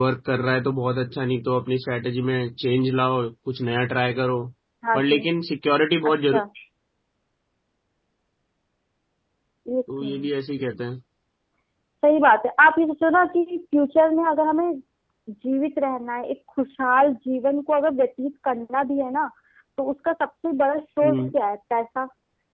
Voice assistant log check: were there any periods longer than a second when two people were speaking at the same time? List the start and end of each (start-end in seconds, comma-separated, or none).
none